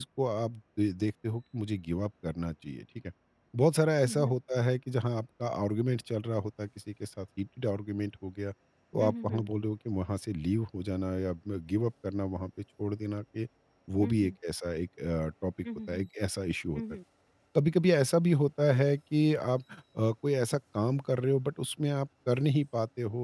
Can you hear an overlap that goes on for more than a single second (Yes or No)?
No